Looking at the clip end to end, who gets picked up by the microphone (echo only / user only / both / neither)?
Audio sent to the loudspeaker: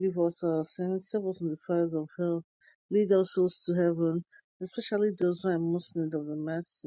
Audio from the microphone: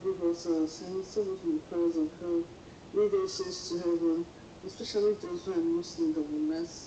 echo only